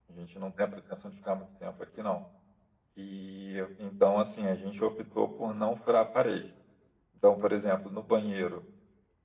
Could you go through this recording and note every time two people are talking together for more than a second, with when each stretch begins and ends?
none

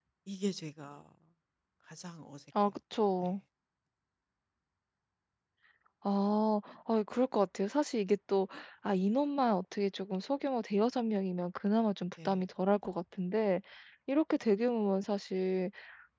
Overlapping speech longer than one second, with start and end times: none

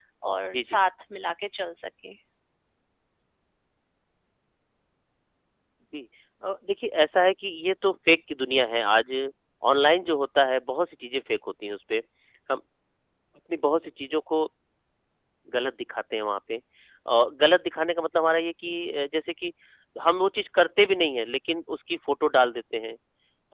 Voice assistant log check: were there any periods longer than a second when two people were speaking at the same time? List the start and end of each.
none

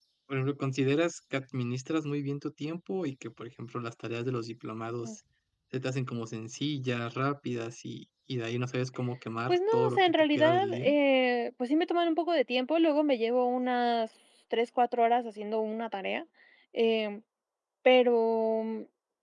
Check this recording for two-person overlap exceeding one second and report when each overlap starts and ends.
9.5-10.9

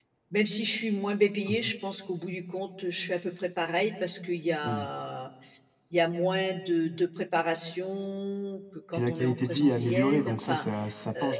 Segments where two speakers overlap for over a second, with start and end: 8.9-10.7

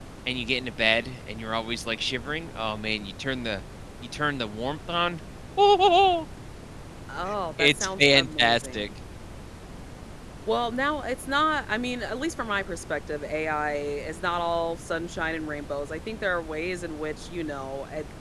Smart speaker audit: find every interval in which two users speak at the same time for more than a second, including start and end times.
7.6-8.9

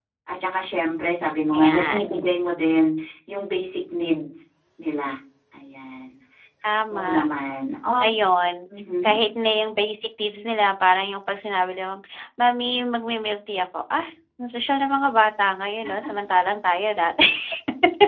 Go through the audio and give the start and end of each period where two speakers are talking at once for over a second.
none

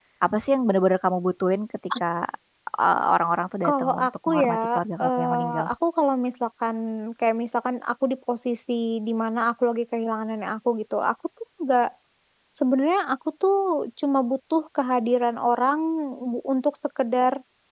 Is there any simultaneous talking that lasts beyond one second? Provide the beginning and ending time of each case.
3.6-5.7

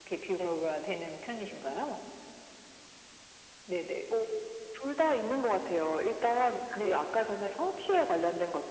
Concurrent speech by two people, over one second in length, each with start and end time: none

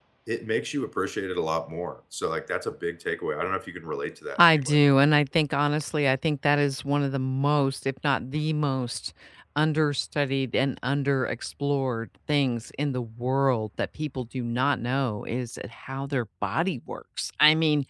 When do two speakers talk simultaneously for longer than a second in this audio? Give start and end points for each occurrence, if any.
none

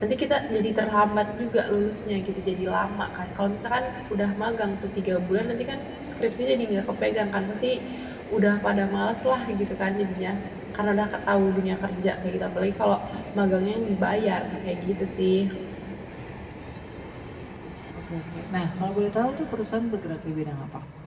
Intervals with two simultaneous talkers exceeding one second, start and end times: none

